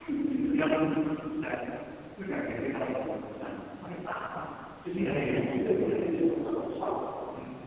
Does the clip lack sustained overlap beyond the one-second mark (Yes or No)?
No